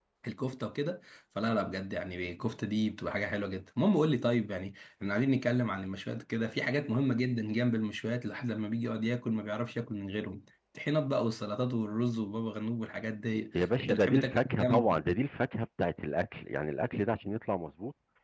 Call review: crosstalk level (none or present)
present